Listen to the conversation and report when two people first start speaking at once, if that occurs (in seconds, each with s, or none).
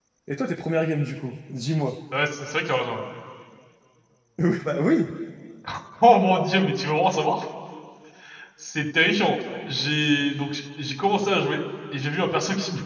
none